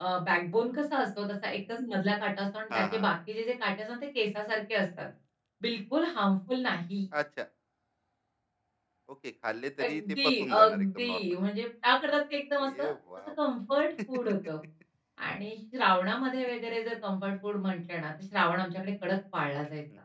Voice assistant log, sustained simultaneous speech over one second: present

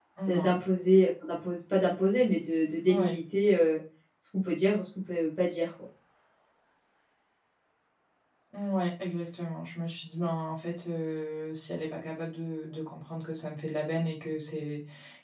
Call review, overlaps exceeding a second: none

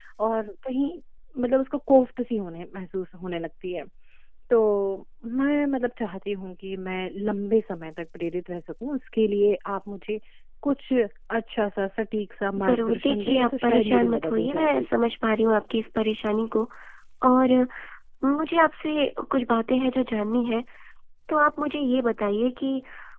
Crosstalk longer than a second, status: present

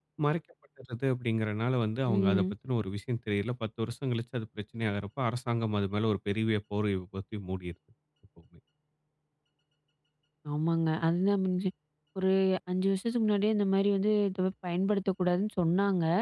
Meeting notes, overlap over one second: none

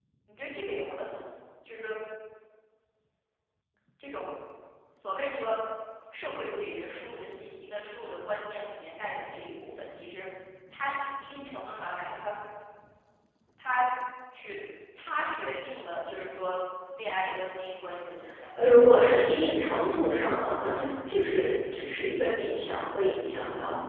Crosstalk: none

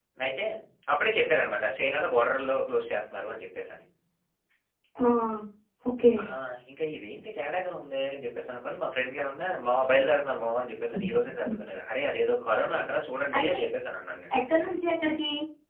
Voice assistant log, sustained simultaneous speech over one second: none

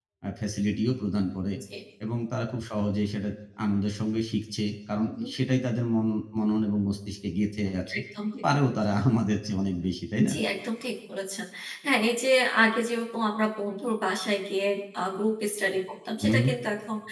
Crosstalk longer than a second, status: none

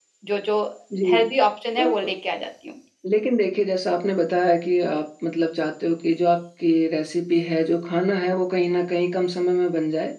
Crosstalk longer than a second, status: none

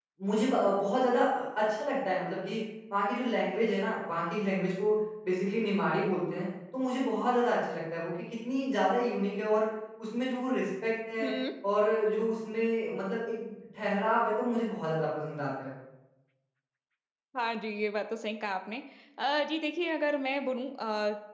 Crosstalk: none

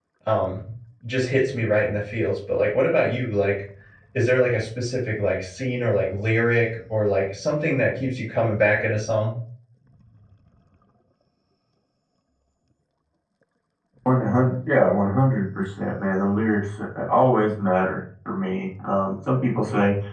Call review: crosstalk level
none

